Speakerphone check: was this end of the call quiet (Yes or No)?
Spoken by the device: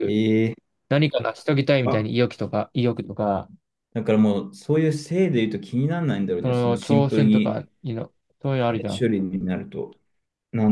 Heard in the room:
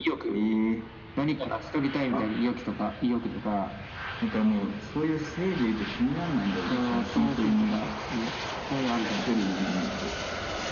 Yes